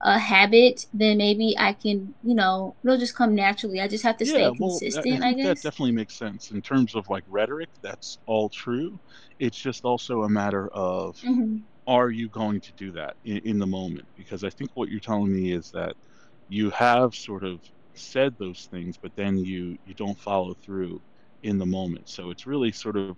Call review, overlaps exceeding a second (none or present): present